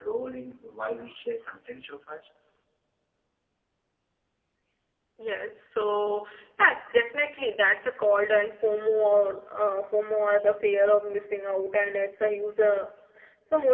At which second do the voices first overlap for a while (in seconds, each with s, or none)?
none